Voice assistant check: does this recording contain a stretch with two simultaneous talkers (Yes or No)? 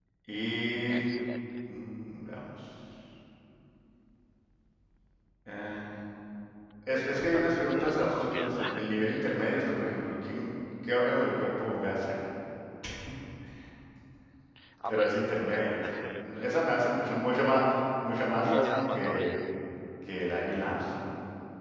Yes